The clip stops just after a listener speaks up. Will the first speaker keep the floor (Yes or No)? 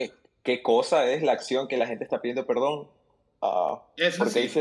Yes